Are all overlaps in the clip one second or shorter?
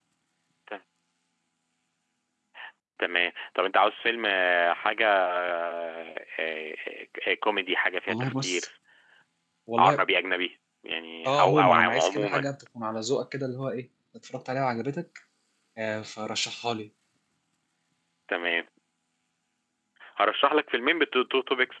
No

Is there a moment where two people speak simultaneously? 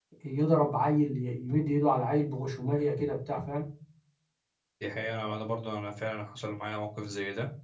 No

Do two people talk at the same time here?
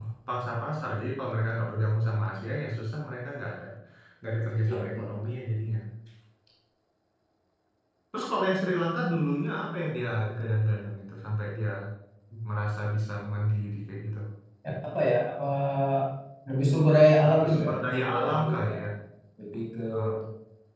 Yes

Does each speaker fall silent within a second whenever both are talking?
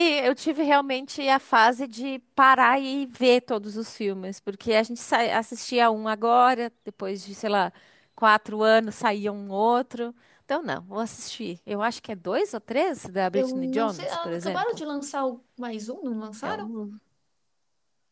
No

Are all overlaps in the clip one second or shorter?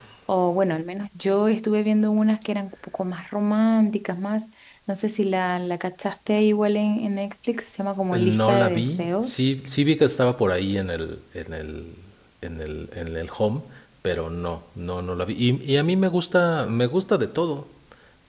No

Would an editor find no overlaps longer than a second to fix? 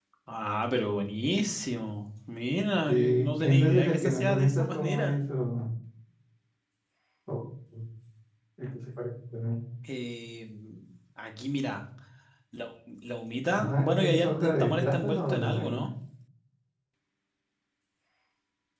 No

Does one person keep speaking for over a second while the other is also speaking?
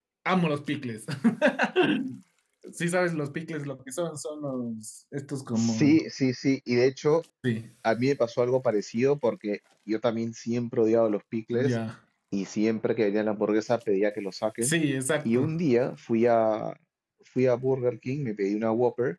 No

